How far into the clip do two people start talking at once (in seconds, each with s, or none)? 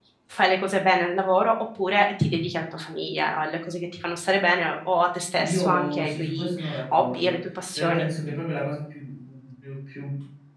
5.3 s